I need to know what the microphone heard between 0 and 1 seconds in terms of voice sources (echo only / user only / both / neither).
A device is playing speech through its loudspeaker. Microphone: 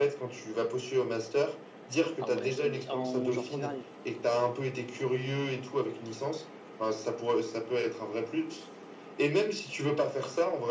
echo only